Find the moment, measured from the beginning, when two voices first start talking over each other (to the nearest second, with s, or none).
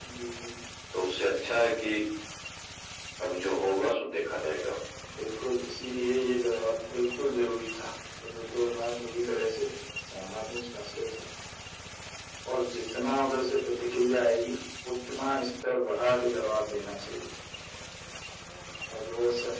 none